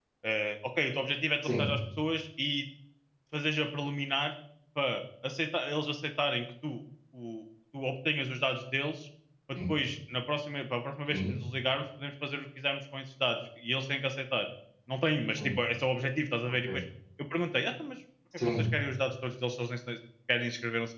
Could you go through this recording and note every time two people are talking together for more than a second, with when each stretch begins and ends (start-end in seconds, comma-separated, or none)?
none